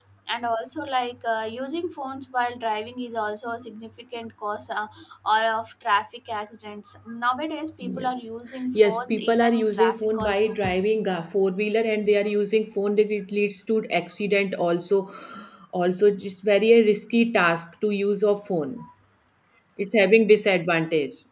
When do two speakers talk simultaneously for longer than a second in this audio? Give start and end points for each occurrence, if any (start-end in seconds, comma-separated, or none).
8.7-10.5